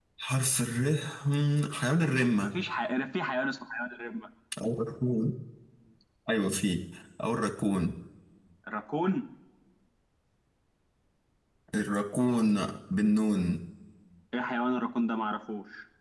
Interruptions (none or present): none